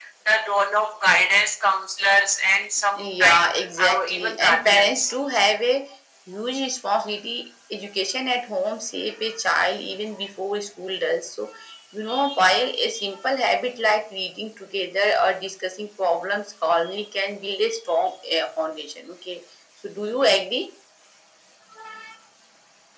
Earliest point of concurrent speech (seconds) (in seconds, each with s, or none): 3.0 s